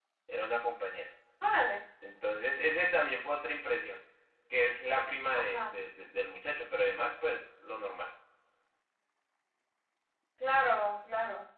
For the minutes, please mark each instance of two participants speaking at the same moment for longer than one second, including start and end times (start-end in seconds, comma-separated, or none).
none